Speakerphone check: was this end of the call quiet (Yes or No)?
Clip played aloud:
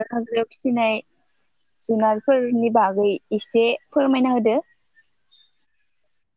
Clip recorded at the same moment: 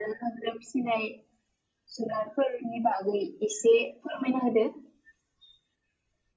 Yes